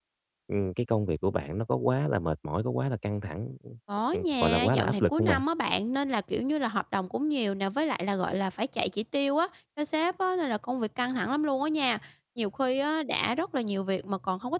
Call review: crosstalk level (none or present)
present